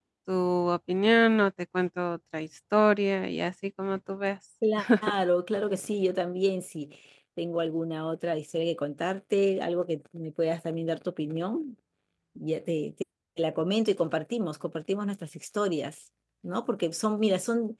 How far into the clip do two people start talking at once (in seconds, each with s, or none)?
none